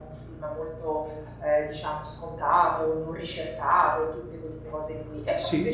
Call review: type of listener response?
listening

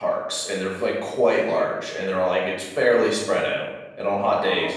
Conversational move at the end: listening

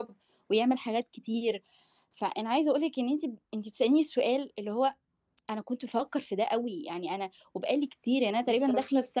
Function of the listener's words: listening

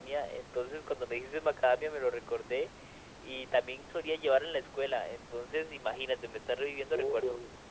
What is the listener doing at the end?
taking over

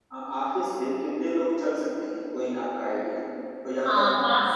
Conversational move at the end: taking over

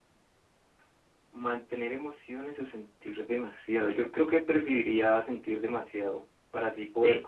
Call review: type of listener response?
listening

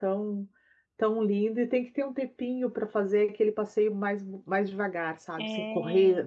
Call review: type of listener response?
listening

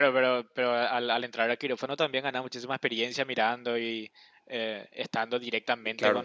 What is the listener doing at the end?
taking over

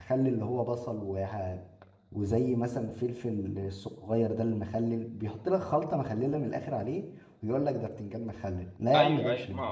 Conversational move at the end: taking over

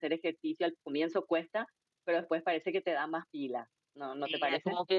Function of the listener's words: taking over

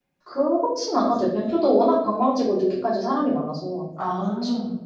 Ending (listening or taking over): taking over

